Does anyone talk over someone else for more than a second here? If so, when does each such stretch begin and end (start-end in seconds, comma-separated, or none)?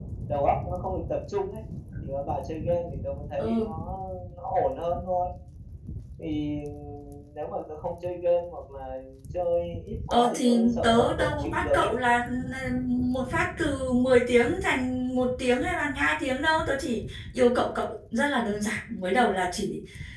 10.1-11.9